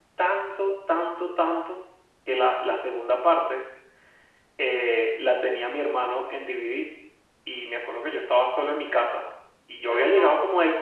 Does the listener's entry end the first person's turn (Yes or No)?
No